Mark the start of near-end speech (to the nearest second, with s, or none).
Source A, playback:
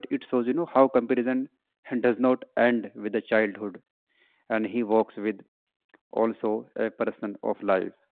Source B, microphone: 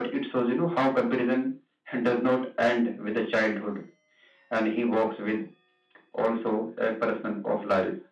none